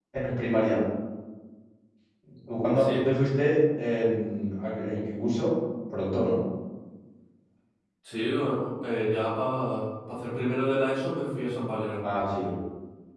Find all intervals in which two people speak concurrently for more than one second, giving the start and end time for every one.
none

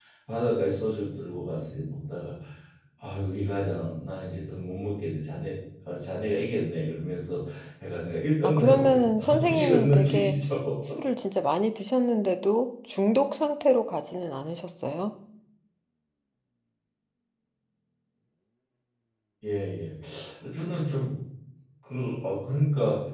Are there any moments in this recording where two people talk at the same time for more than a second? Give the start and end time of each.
8.4-10.3

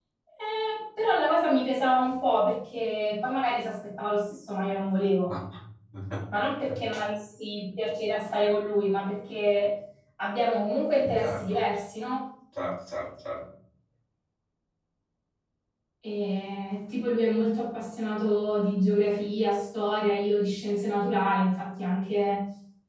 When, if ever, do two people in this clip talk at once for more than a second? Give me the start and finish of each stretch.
none

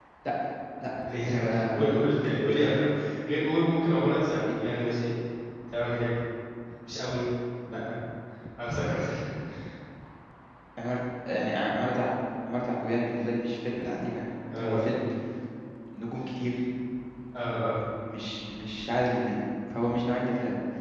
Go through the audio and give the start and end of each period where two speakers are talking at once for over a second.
1.2-2.9

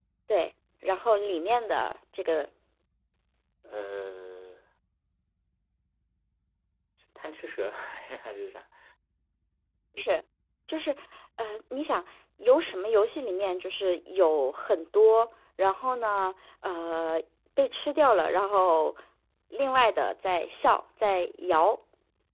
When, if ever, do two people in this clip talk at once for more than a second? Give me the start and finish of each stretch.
none

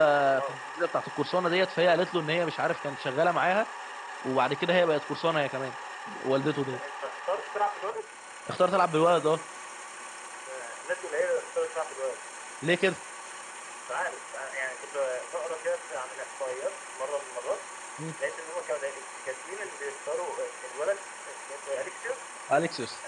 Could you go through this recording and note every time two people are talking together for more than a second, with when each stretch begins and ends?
none

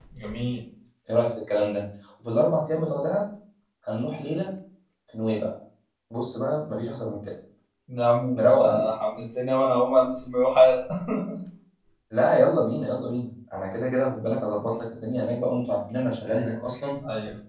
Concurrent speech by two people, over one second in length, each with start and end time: none

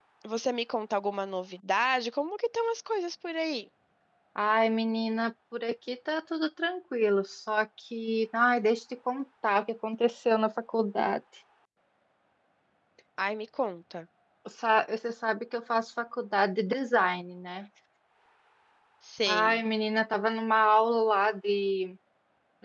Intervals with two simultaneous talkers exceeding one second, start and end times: none

